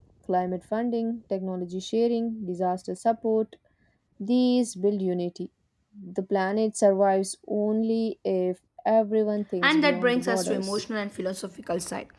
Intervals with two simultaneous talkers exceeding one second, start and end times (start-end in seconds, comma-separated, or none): 9.6-10.8